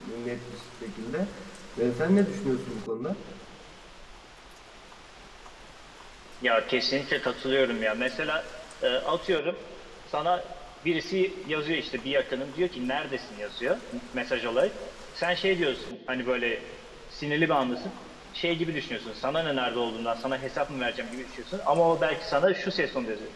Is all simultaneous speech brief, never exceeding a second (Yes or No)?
Yes